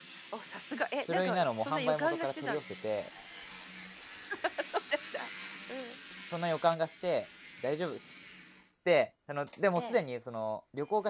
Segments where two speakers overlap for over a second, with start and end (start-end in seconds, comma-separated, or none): 1.1-2.6